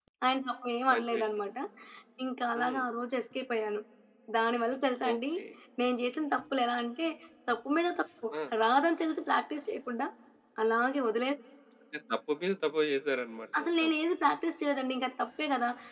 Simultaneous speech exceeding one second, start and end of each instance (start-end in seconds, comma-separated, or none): none